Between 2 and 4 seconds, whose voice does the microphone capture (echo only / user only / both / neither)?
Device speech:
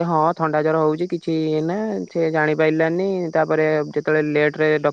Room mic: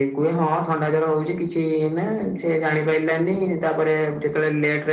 echo only